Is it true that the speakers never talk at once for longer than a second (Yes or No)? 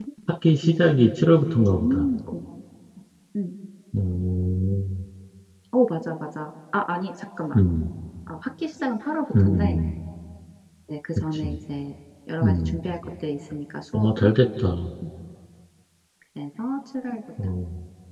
Yes